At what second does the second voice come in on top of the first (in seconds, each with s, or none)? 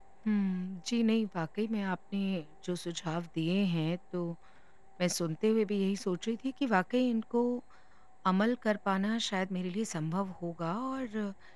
none